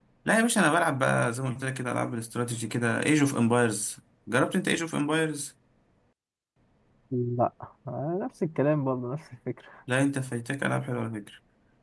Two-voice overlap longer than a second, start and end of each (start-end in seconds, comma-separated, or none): none